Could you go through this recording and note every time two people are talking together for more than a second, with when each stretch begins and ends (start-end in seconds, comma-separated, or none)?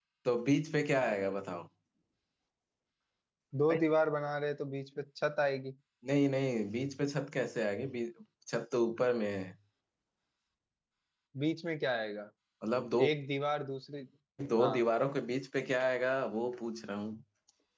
none